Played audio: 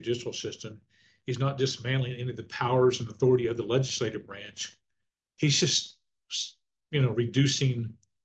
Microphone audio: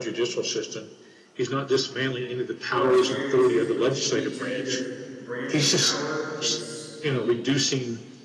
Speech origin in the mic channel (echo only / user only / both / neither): both